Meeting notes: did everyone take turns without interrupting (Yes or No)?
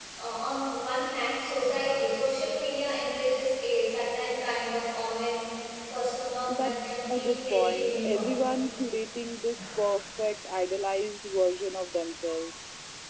No